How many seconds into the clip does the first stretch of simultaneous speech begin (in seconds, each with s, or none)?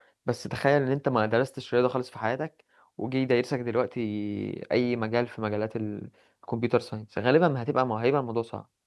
none